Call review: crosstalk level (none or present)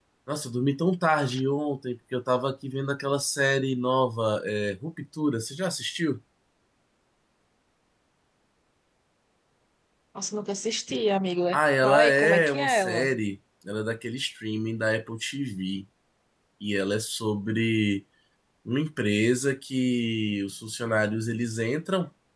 present